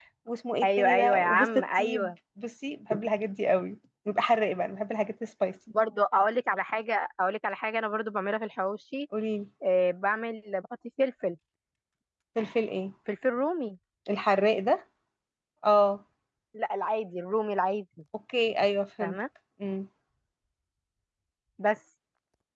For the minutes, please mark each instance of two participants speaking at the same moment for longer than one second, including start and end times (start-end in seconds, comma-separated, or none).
0.6-2.1